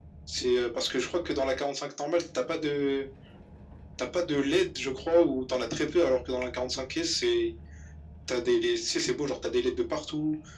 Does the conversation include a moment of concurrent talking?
No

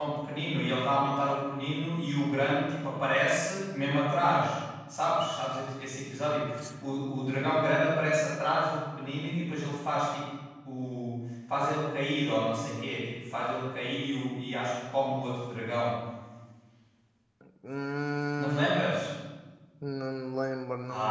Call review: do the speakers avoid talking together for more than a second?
Yes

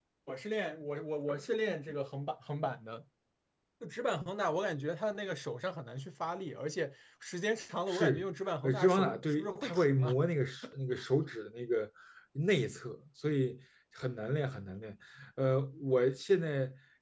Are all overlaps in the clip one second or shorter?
No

